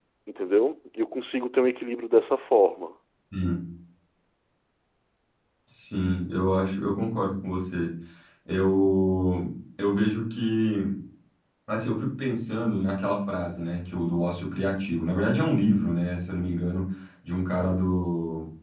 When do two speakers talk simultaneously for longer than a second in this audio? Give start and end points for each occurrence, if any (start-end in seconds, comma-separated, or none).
none